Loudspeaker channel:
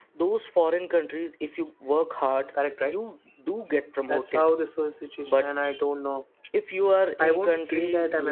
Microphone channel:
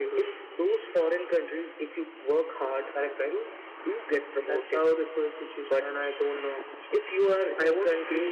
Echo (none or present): present